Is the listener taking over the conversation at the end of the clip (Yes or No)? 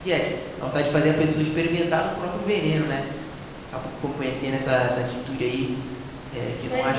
Yes